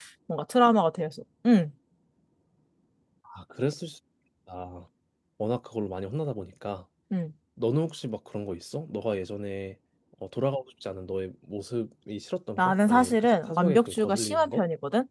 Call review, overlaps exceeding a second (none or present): present